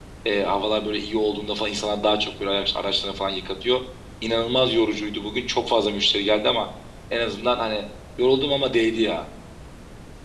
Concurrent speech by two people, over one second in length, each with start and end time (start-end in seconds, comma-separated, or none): none